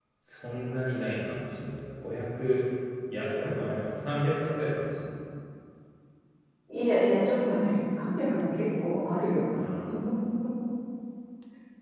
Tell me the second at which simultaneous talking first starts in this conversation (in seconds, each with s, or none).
none